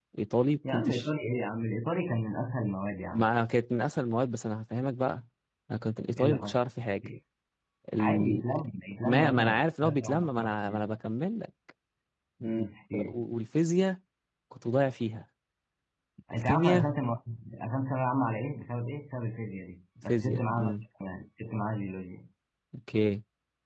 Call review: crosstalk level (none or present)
present